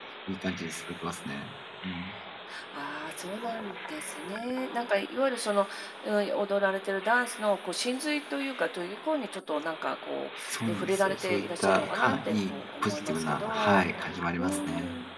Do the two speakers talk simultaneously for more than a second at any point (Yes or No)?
Yes